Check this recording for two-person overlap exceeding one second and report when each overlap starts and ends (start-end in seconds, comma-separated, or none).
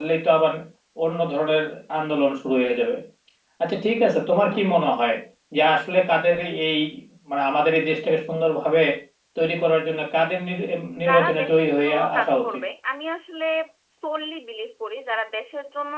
11.1-12.4